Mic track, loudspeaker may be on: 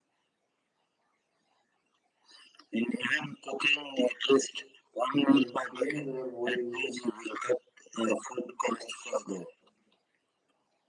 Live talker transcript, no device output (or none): and cleaning our worries